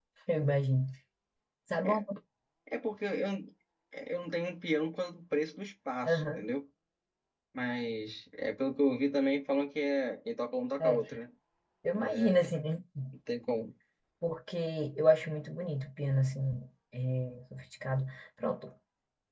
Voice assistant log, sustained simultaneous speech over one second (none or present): none